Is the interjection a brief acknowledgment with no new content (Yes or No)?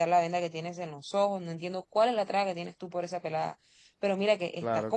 Yes